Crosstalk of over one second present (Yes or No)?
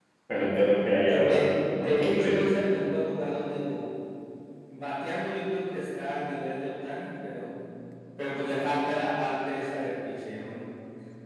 Yes